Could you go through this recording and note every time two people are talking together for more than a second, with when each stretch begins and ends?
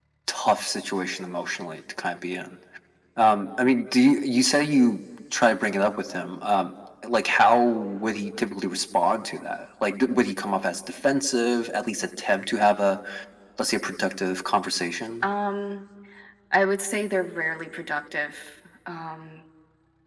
none

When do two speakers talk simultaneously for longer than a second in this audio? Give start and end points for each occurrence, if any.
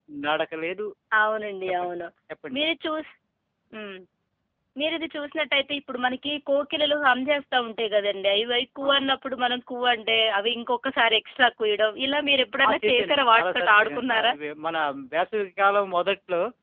12.7-14.3

